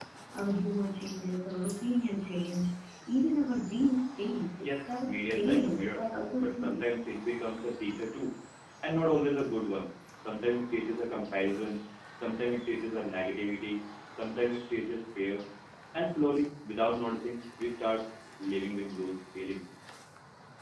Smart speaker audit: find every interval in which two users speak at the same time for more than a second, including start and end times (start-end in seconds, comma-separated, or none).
4.6-6.0